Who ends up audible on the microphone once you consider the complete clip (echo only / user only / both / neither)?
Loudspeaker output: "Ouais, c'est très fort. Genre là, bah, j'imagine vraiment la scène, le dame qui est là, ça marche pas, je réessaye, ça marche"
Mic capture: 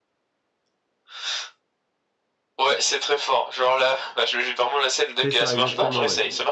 both